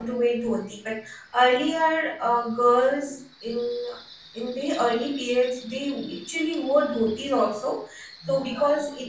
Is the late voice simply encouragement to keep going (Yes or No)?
Yes